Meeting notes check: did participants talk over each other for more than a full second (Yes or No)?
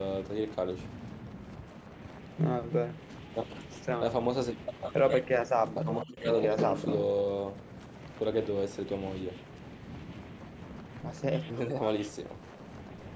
Yes